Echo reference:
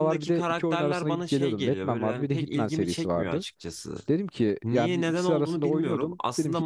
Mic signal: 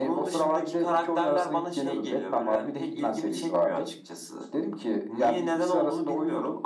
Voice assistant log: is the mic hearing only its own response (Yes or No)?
Yes